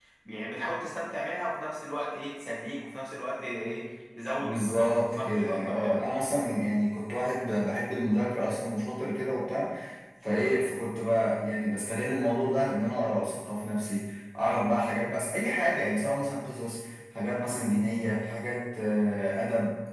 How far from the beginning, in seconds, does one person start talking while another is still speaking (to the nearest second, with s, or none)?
4 s